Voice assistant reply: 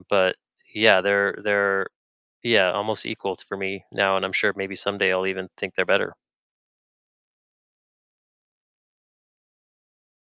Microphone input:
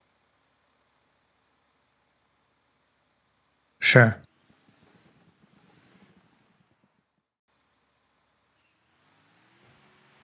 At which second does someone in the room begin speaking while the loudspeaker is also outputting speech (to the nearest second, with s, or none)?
4 s